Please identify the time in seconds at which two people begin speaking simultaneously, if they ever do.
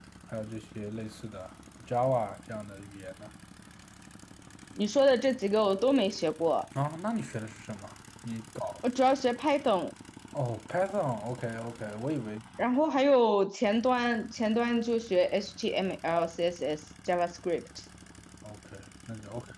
none

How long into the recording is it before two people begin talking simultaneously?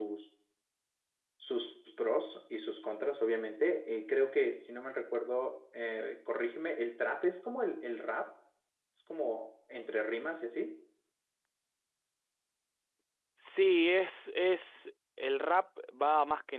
none

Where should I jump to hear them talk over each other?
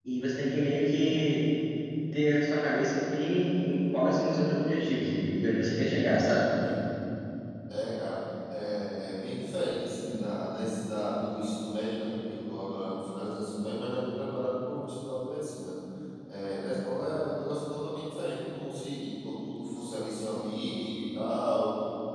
none

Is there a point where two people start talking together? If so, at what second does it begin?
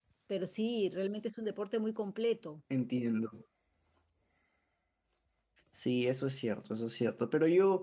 none

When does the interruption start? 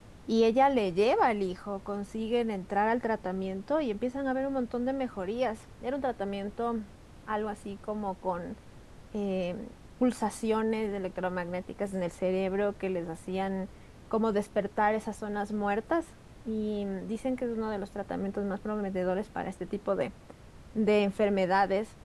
none

